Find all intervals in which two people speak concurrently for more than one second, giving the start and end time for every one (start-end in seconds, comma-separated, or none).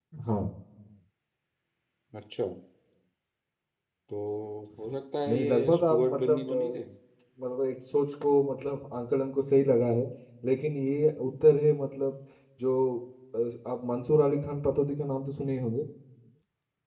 5.3-6.8